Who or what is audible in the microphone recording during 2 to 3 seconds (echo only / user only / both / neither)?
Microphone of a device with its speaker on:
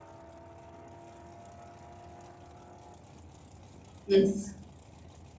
neither